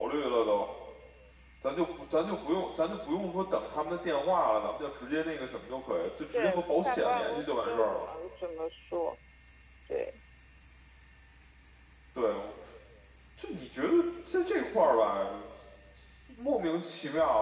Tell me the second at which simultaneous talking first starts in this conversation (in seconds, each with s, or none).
6.3 s